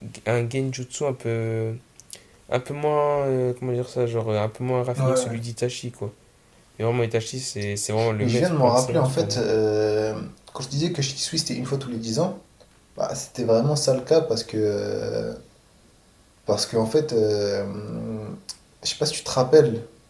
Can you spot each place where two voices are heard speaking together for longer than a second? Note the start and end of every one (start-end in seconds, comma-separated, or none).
8.2-9.4